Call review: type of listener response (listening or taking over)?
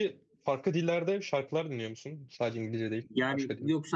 taking over